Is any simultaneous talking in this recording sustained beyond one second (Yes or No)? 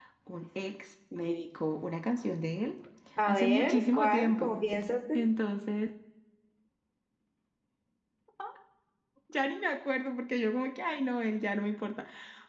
Yes